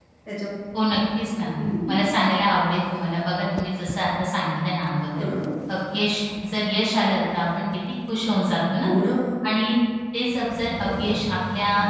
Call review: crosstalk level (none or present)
none